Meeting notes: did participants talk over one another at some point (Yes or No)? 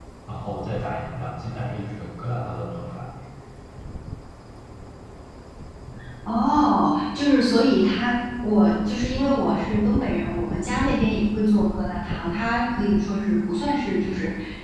No